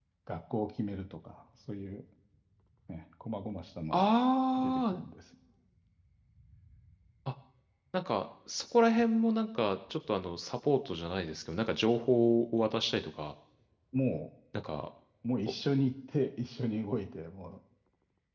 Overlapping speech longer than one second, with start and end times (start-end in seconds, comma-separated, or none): none